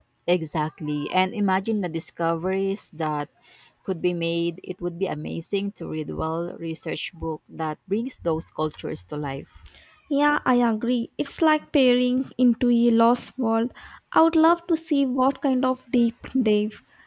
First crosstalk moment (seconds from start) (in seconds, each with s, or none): none